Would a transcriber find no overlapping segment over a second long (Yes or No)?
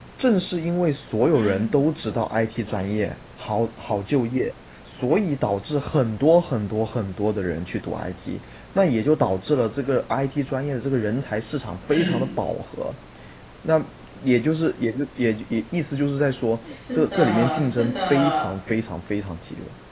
No